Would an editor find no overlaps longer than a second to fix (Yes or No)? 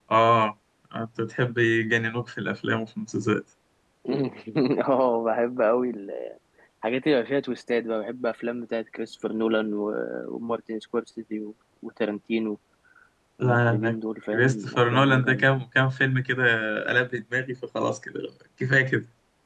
No